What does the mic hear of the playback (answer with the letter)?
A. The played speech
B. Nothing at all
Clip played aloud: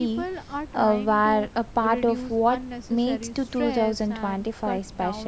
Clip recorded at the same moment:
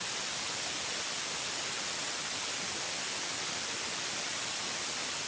B